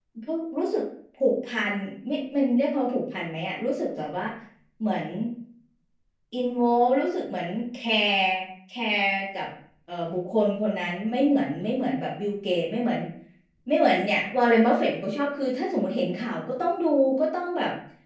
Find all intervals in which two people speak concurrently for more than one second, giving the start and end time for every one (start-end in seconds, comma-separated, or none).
none